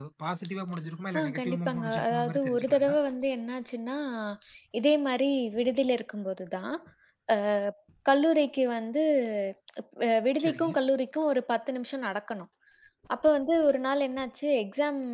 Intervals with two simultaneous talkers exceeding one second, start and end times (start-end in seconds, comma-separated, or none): 1.2-2.9